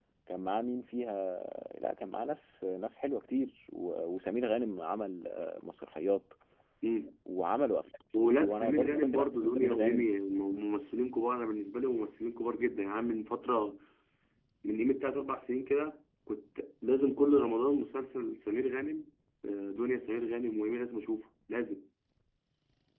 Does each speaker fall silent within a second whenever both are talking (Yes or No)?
No